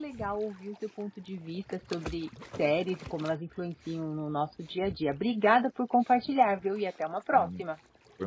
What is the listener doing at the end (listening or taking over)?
taking over